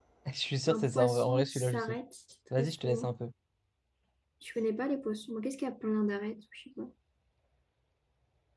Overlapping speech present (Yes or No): Yes